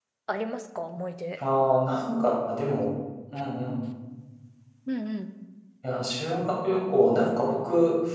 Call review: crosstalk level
none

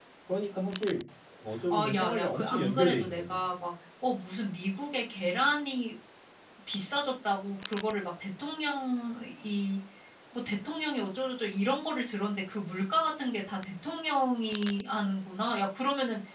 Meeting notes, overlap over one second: present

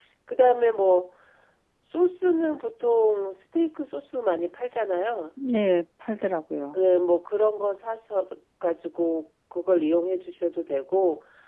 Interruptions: none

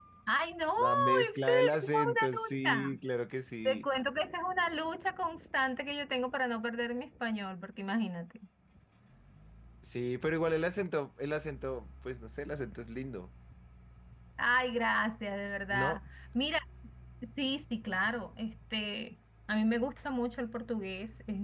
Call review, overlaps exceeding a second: present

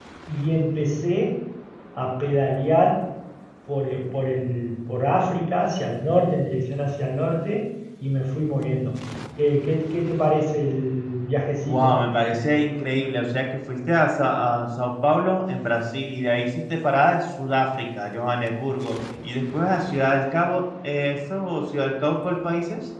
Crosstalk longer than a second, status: none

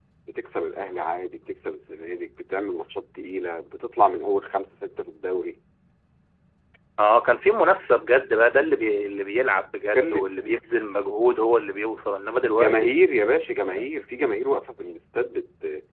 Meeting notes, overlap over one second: none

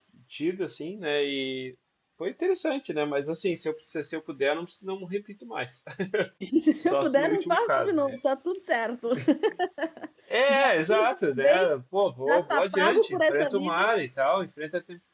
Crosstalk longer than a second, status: present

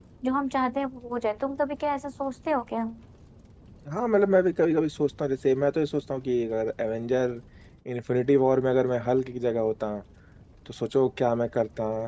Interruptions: none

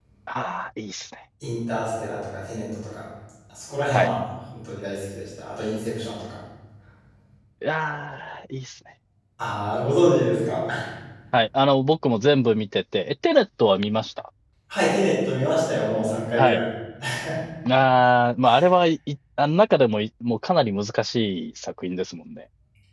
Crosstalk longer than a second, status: none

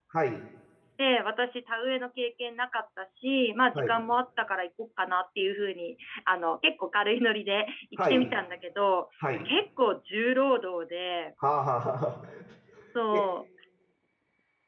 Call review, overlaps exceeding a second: none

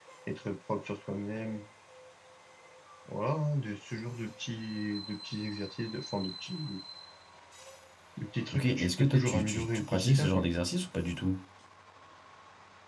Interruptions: present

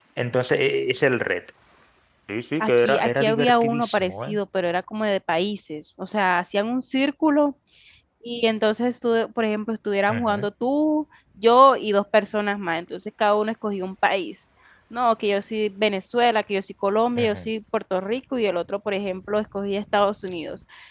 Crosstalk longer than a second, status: present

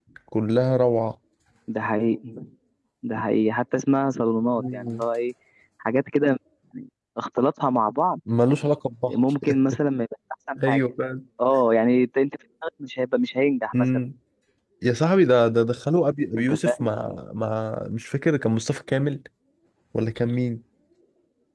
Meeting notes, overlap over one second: none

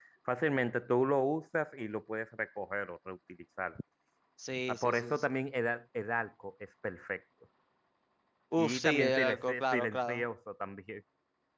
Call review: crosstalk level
present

